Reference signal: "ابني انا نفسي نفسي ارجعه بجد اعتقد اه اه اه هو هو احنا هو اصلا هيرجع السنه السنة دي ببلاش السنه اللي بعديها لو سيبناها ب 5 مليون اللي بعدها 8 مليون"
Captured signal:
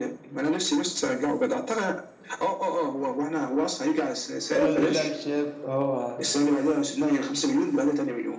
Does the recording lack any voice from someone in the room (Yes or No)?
No